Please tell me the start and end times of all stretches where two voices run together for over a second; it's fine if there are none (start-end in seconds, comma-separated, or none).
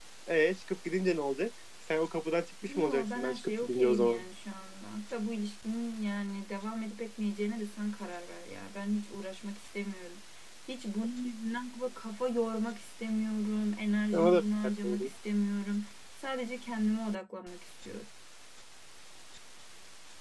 2.7-4.2